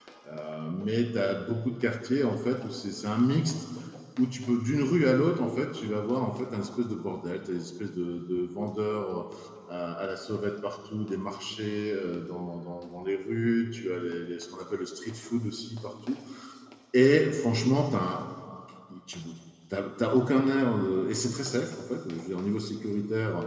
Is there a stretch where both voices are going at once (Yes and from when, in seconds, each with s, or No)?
No